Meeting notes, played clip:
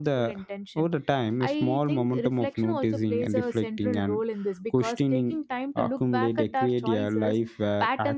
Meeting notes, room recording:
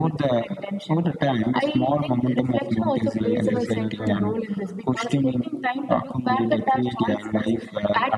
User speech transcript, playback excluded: like uh, seneca and

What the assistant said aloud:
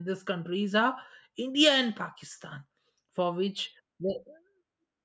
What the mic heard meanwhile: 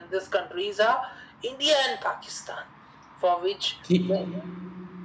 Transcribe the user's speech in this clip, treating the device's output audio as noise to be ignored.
He

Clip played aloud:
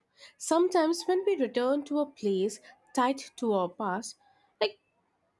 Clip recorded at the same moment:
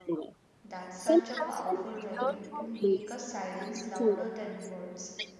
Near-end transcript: That's such a powerful writing to make a silence louder than words.

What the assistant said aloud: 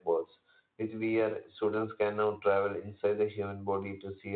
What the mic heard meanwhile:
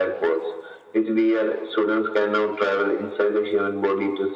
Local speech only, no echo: none

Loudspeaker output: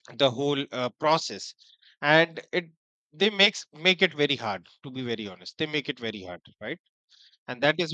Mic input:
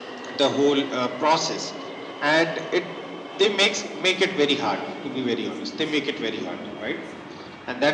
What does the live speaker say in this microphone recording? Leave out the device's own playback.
none

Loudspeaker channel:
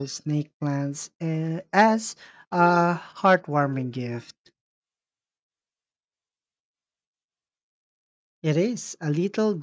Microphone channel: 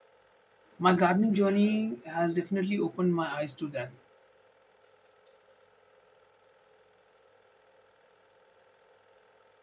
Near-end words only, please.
My gardening journey has definitely opened my eyes to that

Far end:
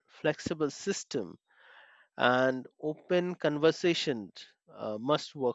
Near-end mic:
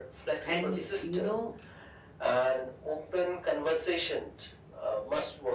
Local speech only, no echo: and you know

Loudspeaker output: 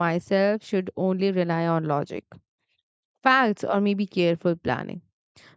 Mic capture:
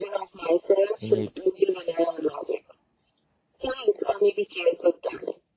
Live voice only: in it

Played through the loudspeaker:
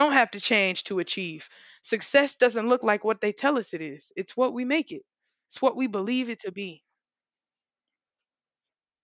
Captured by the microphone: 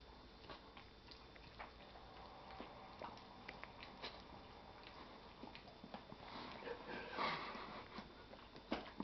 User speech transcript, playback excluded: none

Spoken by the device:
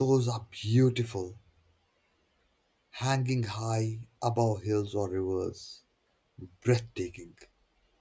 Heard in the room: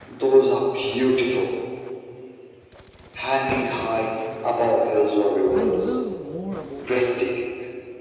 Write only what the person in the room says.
I learned more about

